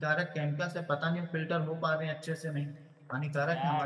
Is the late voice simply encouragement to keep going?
No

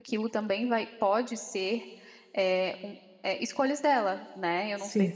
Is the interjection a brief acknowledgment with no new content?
No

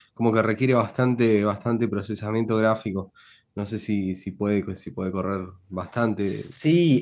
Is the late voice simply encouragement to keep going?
No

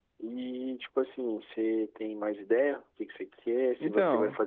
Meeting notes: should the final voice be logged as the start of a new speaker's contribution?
No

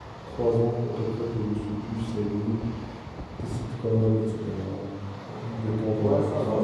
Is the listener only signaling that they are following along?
No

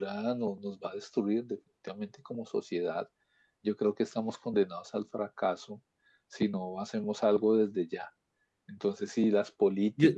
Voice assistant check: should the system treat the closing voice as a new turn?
No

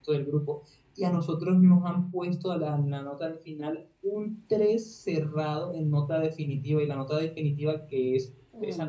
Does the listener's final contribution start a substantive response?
No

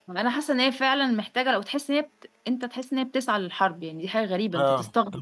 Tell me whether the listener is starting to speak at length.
Yes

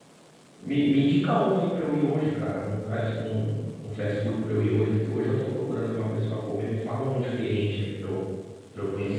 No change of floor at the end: No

